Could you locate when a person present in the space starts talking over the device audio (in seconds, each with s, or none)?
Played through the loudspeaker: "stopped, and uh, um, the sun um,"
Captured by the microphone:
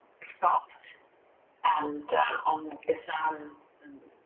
none